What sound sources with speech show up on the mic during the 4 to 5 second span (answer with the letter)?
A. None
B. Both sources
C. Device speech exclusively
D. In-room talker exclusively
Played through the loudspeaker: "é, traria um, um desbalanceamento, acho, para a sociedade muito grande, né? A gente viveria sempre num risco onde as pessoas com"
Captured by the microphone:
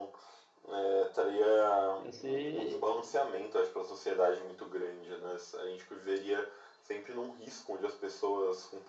C